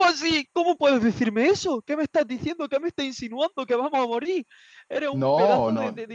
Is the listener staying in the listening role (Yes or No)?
No